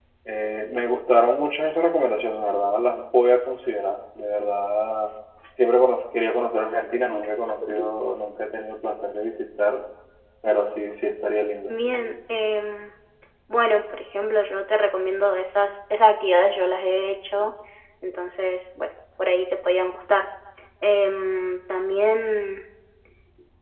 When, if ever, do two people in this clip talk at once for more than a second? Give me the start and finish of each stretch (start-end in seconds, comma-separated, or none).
none